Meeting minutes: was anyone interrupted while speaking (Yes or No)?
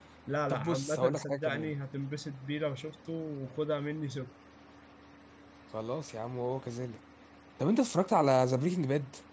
Yes